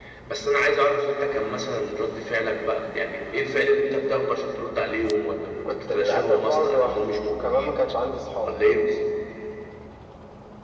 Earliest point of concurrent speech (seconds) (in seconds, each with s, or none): 5.7 s